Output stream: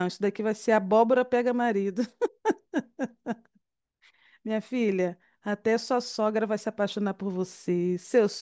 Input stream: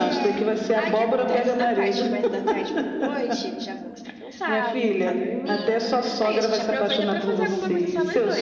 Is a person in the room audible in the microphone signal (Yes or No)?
Yes